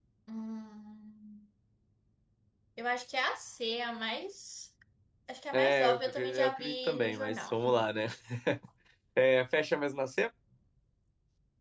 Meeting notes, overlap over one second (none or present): present